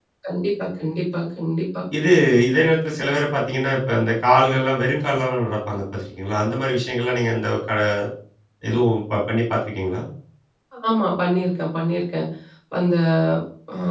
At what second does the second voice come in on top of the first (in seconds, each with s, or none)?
none